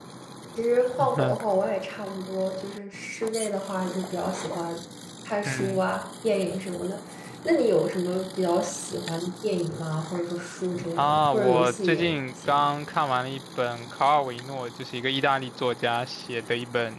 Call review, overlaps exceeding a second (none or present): present